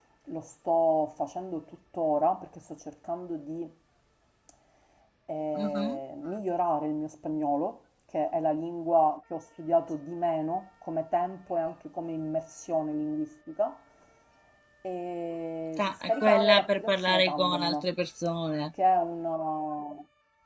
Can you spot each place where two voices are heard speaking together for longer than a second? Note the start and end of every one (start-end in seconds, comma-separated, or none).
15.8-17.9